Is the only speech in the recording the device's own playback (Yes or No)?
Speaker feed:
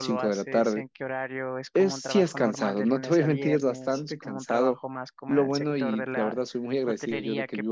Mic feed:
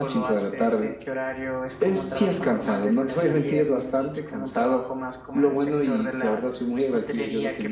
Yes